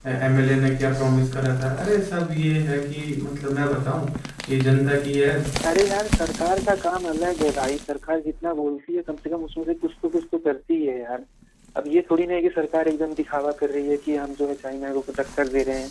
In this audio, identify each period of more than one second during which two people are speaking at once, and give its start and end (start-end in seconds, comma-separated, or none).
none